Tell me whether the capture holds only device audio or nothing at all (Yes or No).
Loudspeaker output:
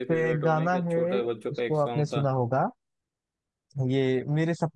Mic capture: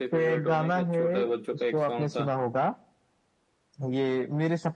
Yes